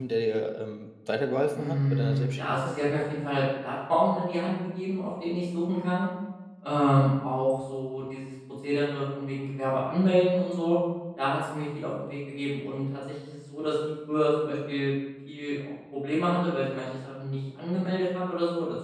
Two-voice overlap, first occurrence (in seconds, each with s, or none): 1.6 s